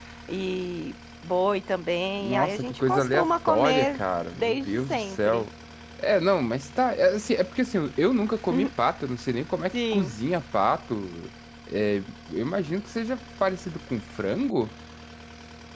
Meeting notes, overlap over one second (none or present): present